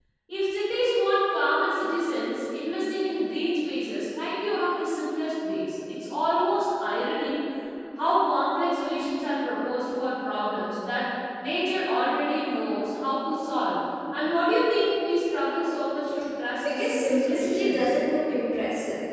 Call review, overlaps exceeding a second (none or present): present